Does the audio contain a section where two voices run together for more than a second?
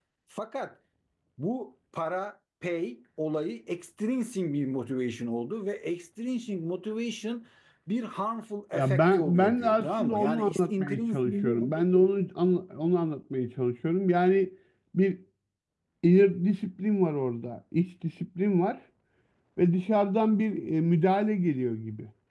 Yes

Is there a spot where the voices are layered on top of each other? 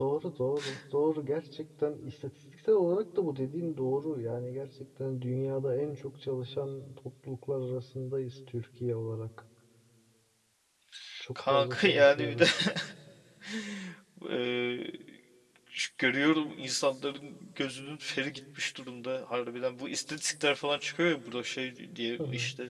Yes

